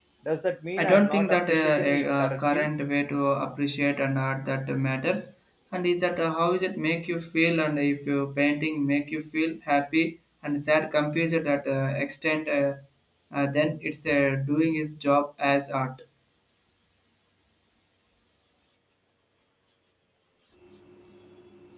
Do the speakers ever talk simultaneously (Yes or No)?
Yes